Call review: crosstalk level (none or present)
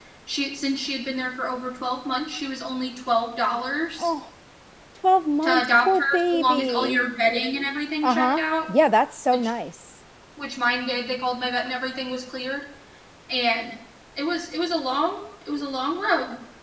present